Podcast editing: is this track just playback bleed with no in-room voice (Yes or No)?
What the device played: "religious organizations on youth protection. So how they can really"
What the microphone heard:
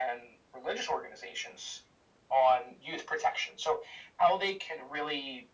Yes